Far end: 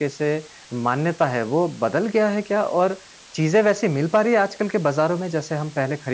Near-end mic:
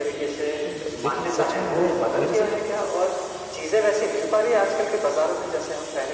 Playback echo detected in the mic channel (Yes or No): Yes